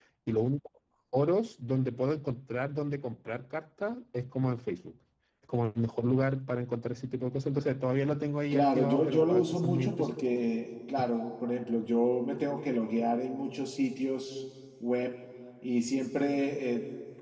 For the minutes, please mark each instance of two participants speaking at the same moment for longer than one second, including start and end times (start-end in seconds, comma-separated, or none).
8.5-10.2